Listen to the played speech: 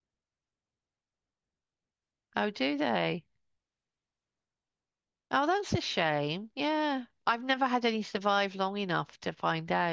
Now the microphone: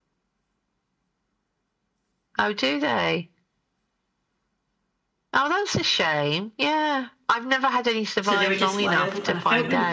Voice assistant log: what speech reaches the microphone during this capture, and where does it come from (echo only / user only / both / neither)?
both